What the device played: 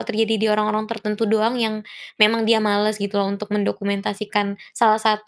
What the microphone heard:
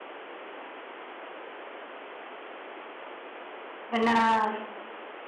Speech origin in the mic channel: user only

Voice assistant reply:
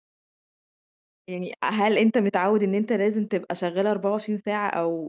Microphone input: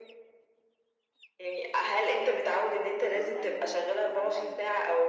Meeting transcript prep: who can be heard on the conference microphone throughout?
both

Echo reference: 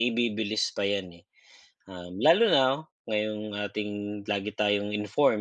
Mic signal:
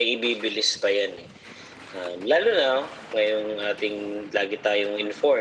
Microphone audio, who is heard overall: echo only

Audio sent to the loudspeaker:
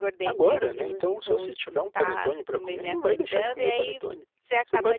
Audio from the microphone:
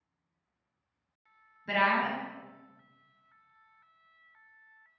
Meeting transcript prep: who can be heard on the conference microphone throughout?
user only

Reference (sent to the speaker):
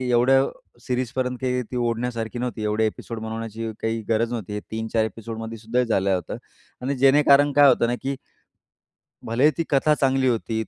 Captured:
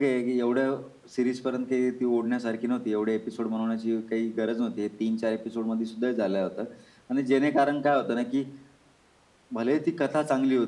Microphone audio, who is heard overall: echo only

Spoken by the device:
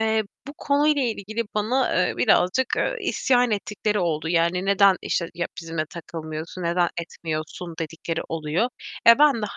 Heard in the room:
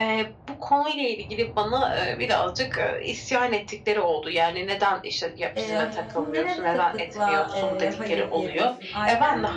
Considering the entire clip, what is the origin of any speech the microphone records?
both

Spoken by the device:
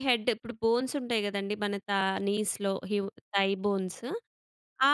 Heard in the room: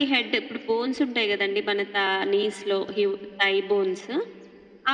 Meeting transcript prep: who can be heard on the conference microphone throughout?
echo only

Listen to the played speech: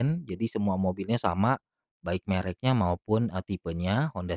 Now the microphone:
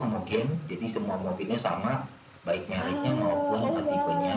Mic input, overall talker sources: both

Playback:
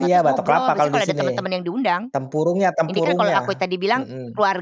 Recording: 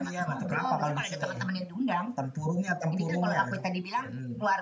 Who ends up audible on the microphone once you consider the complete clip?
echo only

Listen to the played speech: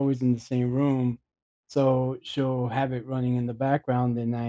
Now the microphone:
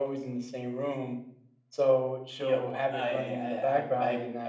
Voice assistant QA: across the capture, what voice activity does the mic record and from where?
both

